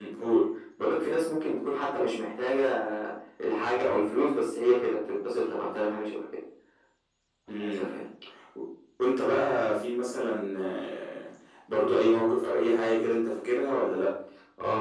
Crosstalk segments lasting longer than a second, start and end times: none

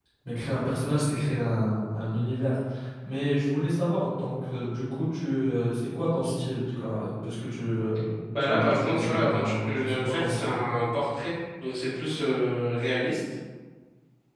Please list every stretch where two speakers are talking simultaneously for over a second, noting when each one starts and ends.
8.4-10.6

